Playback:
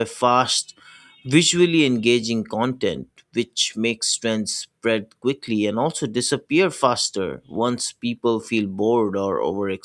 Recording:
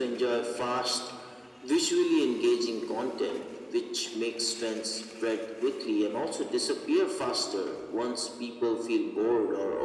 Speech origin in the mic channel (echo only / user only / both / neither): echo only